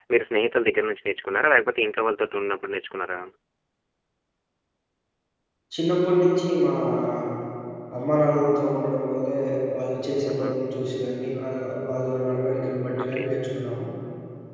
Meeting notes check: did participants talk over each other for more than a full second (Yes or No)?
No